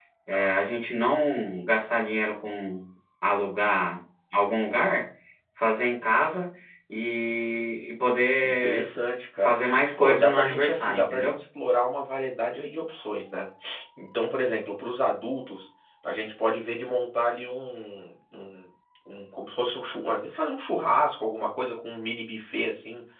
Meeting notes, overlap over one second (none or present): present